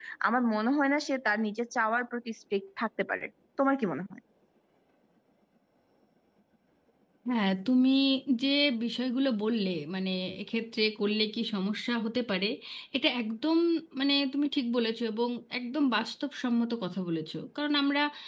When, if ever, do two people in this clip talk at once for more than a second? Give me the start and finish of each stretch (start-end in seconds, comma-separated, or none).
none